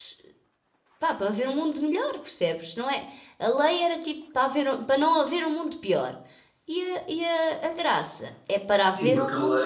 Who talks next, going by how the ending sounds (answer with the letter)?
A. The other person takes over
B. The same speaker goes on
A